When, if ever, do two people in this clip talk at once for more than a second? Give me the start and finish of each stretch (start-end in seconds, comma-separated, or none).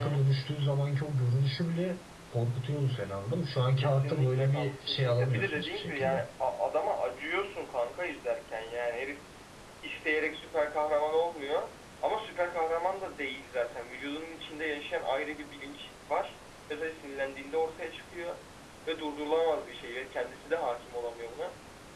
3.8-6.2